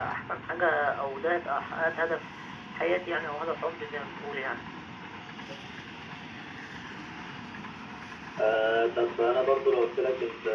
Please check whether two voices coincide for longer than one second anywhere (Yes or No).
No